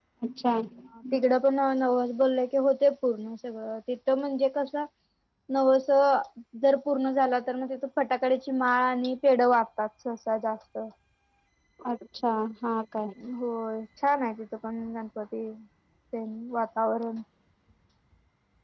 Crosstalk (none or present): none